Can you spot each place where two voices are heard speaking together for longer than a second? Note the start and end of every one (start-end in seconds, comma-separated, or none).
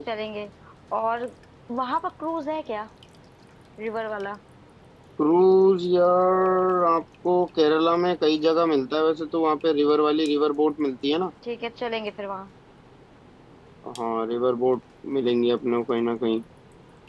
none